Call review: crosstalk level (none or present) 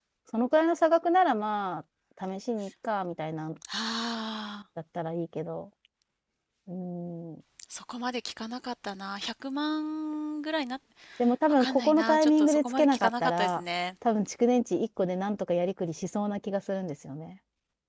present